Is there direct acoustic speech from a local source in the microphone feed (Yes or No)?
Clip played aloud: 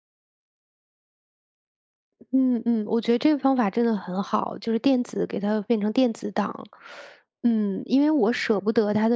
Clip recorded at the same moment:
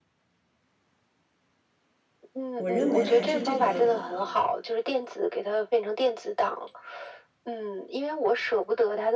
Yes